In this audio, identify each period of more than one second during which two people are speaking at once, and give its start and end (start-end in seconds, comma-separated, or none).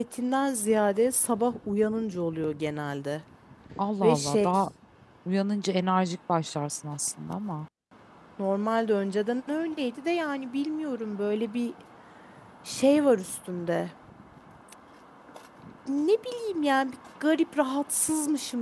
none